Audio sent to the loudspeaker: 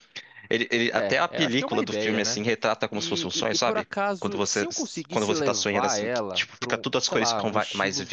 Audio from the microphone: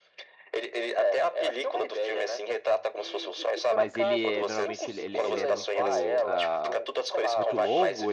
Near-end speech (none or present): present